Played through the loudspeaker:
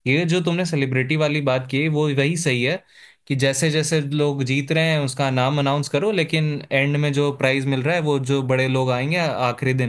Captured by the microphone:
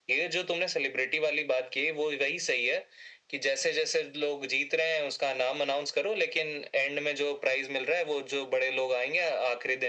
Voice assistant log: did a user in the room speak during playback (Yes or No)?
No